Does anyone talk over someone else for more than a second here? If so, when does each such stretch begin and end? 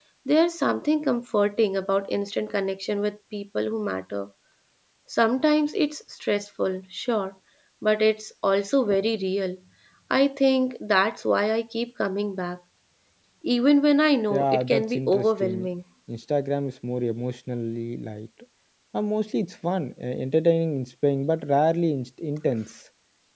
14.3-15.7

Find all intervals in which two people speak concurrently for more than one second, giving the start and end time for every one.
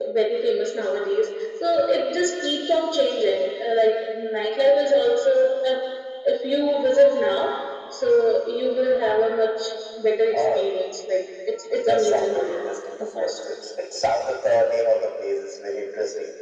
11.7-13.4

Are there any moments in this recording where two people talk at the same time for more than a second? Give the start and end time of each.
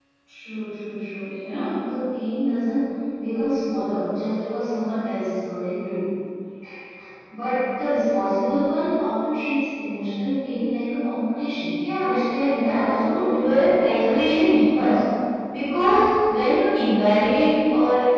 12.0-13.5

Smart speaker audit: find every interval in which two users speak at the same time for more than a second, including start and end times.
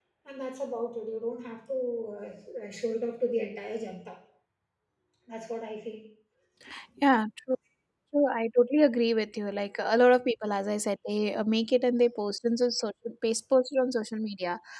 none

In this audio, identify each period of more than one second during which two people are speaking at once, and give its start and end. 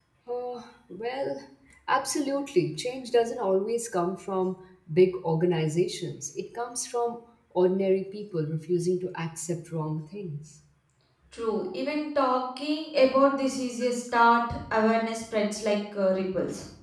none

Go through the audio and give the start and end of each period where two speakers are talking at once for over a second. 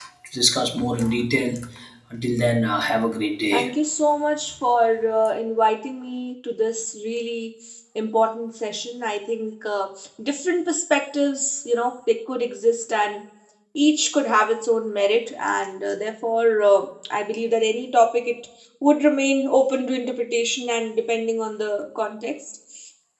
none

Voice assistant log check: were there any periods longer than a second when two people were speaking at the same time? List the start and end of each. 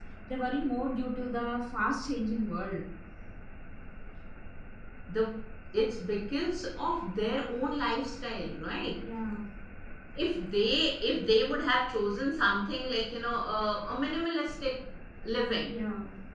none

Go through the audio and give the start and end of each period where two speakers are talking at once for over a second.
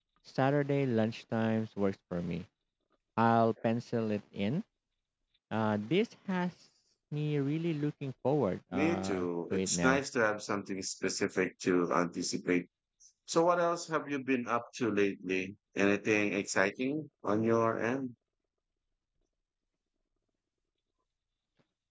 8.7-10.0

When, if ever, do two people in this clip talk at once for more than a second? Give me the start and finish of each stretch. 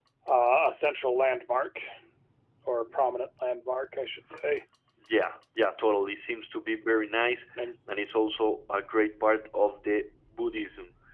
none

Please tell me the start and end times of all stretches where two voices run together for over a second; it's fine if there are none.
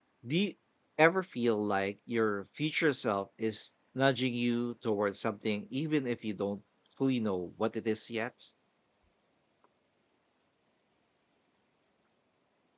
none

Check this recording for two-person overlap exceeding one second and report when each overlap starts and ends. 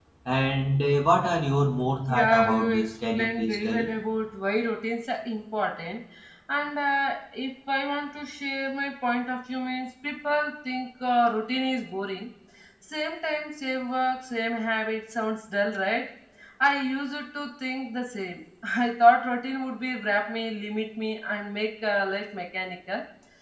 2.1-3.9

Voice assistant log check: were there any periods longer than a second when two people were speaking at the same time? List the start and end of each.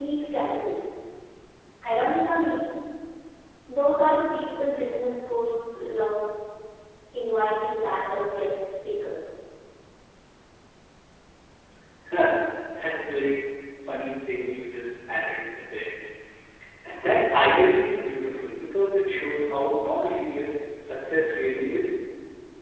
none

